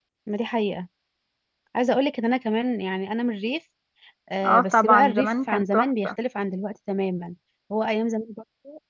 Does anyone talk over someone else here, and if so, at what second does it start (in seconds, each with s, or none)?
4.5 s